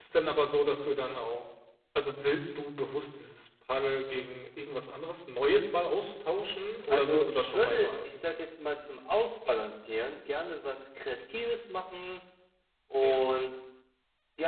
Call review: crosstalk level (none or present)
present